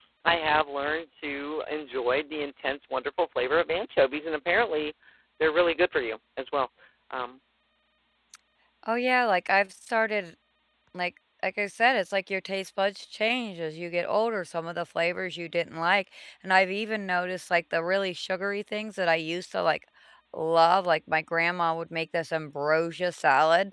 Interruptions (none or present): none